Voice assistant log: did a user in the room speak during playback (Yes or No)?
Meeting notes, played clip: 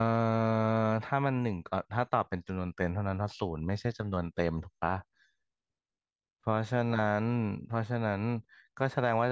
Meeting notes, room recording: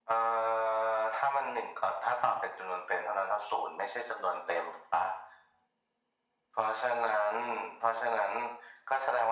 No